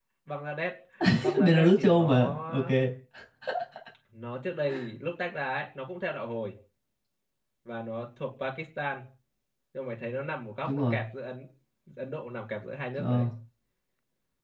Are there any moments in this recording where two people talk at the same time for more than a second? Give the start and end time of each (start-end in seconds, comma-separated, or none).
1.4-2.7